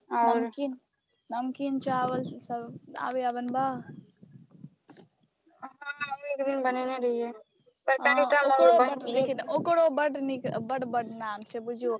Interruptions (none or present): present